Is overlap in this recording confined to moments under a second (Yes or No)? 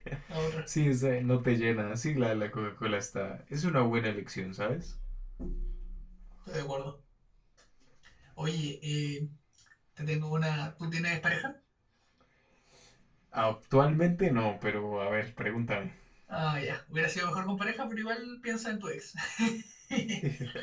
Yes